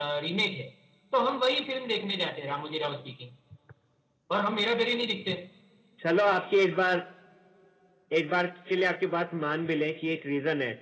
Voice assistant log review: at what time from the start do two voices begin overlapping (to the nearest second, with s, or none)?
none